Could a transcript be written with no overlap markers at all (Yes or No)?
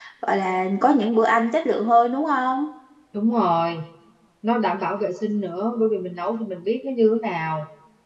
Yes